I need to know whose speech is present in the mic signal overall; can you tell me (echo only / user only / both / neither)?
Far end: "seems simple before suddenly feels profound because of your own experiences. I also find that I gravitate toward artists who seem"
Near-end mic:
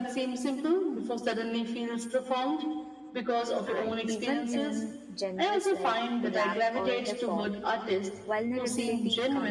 both